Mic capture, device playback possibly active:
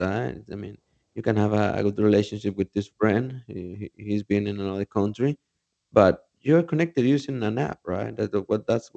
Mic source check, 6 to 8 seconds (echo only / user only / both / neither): user only